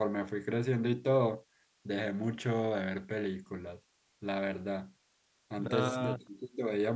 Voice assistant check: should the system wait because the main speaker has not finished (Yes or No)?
Yes